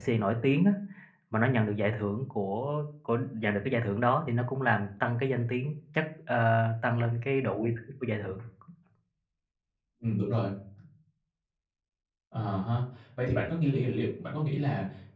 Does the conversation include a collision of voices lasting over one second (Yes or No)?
No